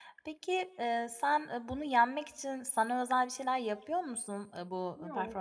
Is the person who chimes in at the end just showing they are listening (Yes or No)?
Yes